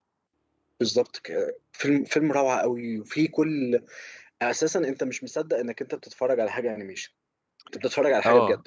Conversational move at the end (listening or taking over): taking over